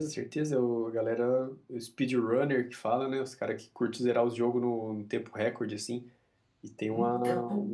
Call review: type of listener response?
listening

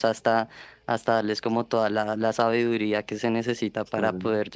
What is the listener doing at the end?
listening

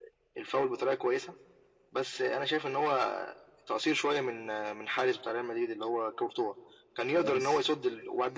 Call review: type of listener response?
listening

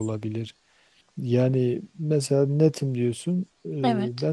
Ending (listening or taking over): listening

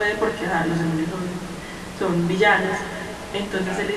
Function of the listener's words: listening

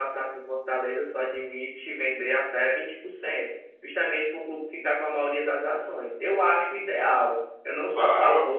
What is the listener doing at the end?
listening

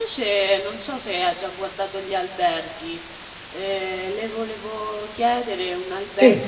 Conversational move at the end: listening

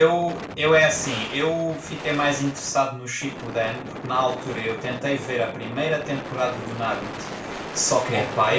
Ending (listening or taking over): listening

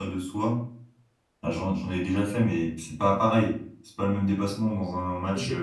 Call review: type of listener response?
taking over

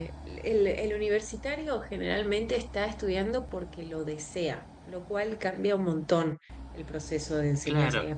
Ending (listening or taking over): listening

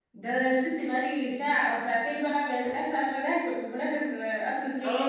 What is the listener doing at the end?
taking over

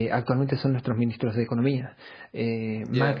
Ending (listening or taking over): listening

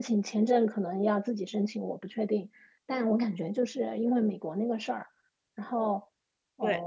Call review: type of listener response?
listening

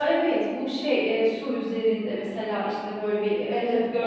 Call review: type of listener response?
taking over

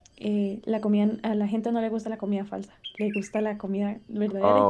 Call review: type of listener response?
taking over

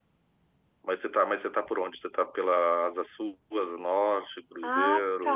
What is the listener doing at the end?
taking over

